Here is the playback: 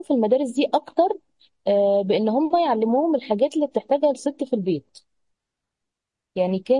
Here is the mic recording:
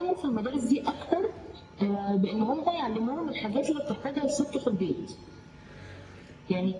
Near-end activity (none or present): none